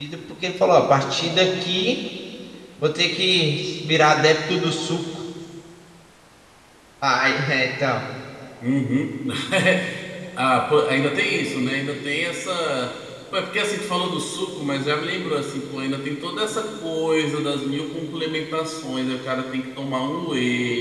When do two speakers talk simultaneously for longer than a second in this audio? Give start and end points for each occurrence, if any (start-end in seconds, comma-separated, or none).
none